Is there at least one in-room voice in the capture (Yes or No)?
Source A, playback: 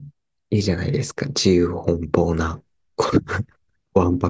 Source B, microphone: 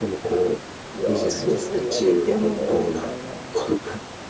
Yes